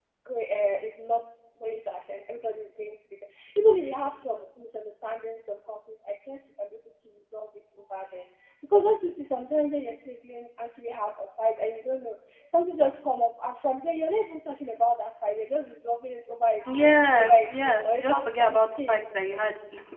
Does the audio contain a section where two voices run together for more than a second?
Yes, from 16.6 s

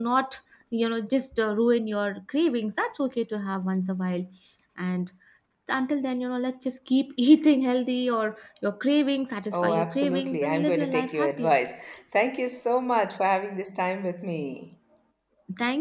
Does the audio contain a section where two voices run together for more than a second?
Yes, from 9.5 s

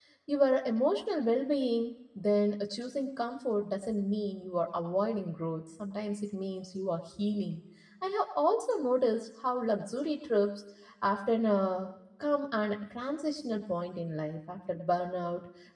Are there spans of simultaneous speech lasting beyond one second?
No

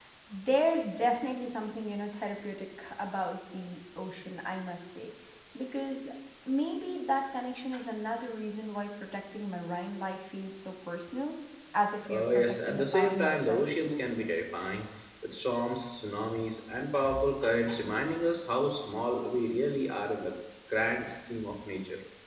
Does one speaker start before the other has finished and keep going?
Yes, from 12.1 s

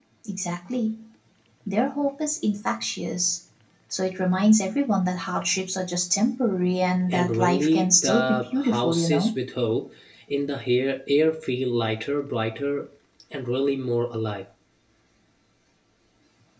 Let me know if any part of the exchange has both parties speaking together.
Yes, from 7.1 s

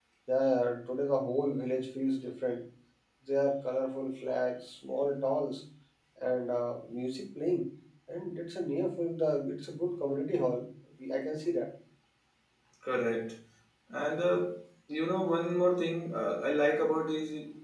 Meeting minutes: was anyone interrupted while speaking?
No

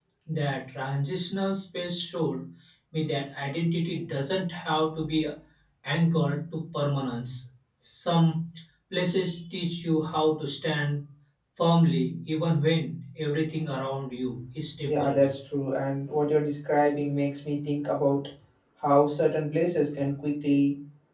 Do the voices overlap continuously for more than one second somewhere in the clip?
No

